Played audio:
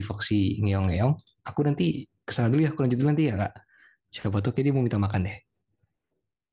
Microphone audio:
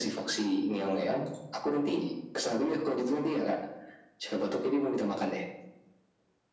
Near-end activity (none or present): none